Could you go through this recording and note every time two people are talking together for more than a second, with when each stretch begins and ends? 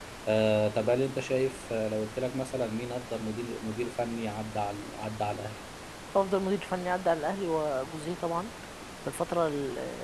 none

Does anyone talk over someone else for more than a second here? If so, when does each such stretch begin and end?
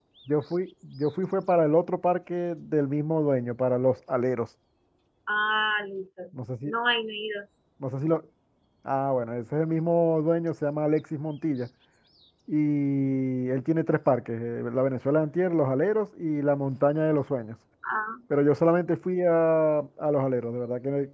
none

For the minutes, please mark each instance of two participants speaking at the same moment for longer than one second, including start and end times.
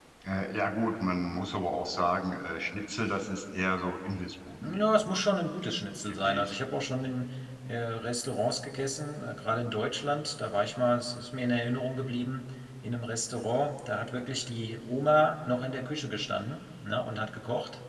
none

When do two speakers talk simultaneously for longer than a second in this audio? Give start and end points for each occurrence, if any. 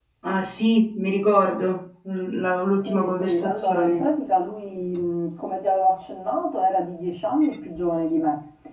2.8-4.0

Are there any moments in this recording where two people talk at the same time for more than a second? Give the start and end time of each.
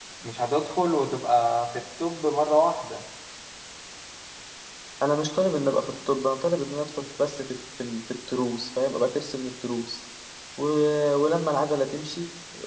none

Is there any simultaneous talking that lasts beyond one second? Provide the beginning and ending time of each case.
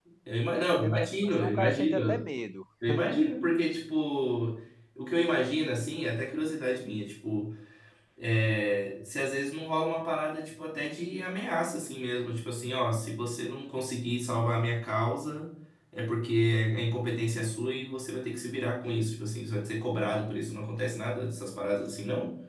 0.5-2.1

